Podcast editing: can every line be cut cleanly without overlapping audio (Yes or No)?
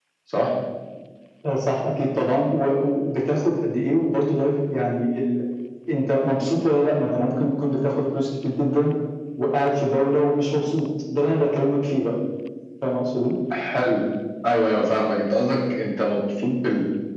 Yes